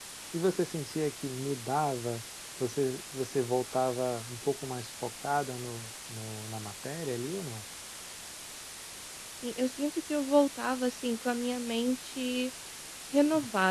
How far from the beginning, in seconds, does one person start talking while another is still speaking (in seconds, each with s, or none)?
none